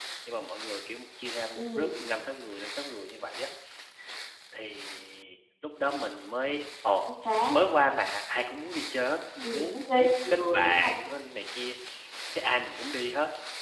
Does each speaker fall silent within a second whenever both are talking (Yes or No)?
No